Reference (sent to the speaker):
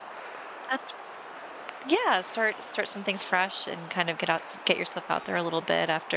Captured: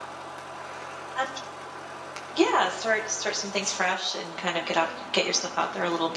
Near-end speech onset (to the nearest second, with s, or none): none